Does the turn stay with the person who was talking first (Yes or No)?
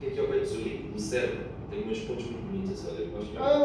No